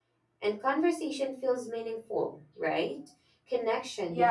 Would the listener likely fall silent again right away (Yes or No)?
No